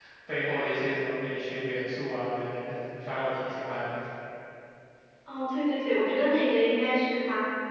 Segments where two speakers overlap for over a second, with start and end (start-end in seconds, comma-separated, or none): none